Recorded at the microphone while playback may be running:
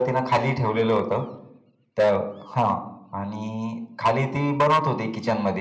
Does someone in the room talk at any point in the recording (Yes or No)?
No